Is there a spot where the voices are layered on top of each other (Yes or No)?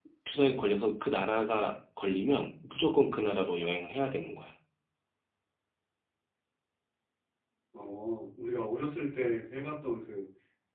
No